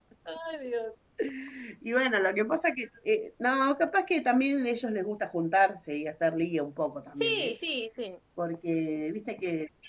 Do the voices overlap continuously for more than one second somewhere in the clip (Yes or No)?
No